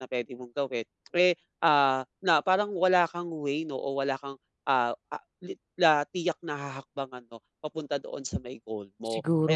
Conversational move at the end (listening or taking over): listening